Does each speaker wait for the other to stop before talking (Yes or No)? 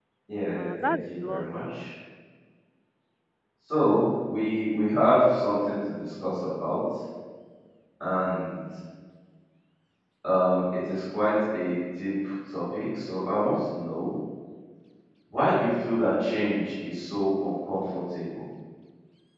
No